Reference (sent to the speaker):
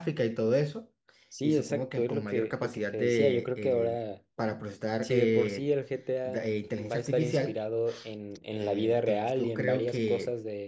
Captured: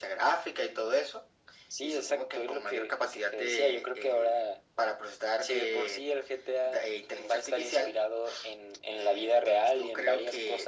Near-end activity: none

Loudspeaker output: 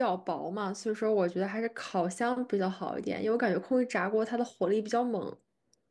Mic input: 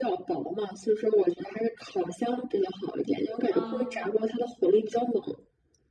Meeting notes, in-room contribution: present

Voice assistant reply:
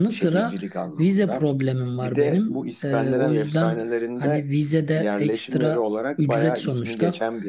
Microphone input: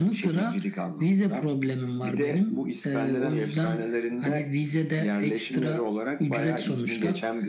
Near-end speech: none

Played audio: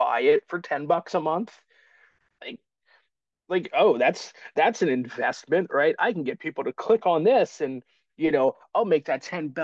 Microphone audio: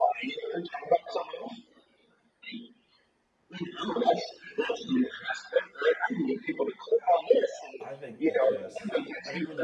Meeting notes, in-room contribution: present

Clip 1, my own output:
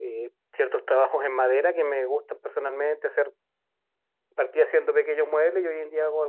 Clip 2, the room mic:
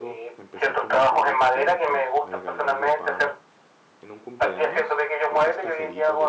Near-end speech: present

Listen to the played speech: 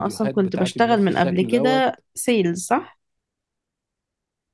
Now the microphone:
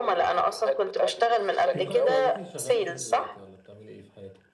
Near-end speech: present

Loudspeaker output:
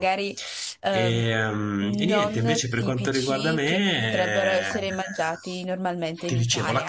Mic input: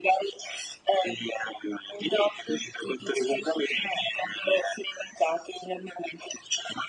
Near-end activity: none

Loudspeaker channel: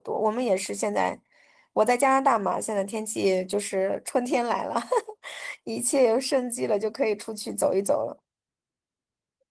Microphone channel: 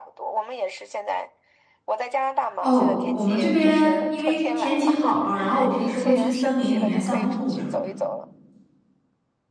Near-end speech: present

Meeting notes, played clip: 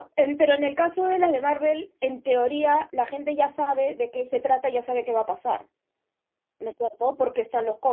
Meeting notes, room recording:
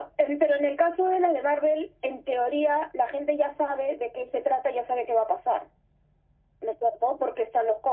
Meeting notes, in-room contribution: none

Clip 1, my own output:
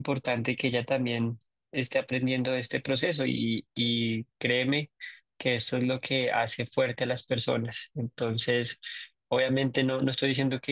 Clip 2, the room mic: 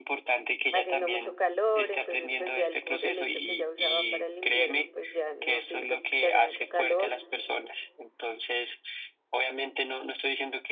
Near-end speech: present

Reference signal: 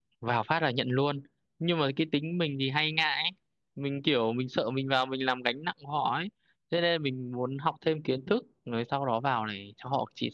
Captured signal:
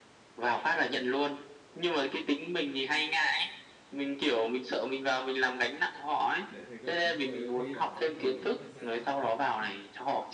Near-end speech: present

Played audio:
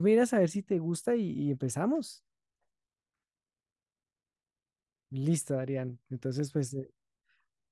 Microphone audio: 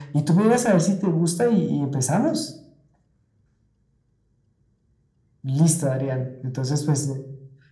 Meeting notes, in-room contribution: none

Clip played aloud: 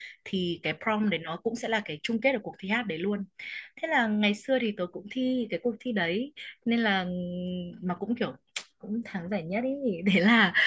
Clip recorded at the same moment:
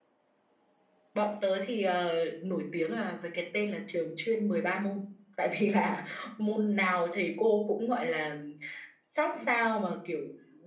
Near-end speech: present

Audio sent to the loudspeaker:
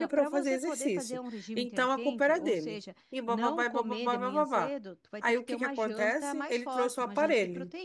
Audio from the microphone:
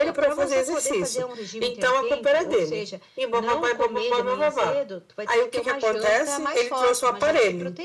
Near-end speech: none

